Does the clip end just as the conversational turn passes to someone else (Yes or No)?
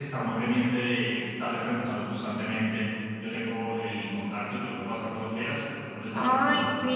No